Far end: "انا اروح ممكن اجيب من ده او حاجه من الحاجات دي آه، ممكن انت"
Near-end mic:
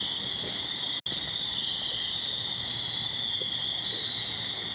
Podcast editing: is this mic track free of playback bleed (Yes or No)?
Yes